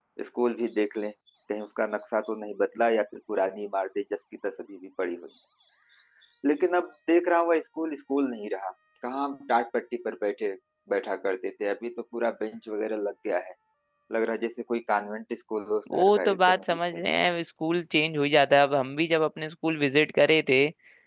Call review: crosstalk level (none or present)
present